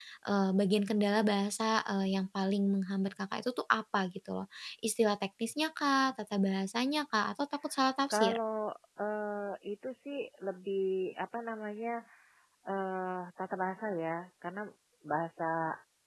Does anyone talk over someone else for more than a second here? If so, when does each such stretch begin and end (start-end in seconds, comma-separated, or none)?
none